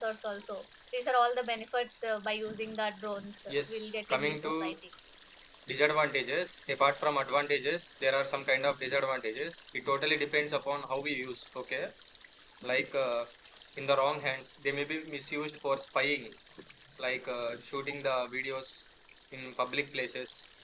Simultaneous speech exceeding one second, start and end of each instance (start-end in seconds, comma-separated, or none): 3.5-4.8